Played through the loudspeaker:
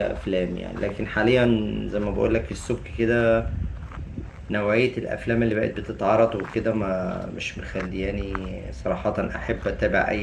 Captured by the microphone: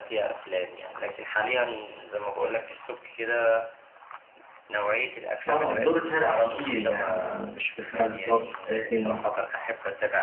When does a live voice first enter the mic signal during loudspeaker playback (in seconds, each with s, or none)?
5.5 s